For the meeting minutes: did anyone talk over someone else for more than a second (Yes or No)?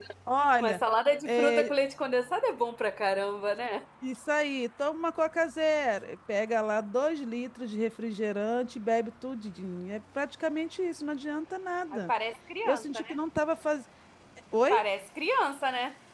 No